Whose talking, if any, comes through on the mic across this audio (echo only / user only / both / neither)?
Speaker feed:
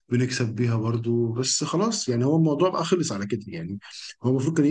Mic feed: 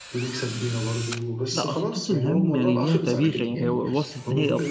both